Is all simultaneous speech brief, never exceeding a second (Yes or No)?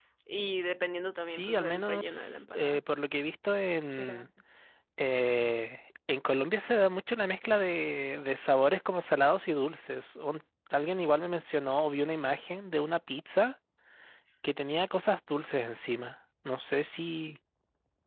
No